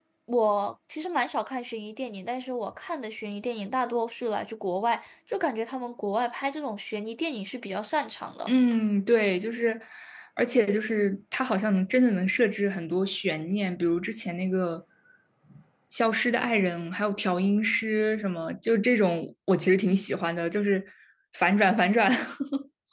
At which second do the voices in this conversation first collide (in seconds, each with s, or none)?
none